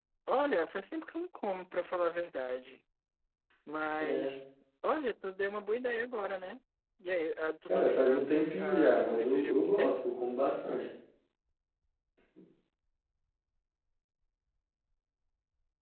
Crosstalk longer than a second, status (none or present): present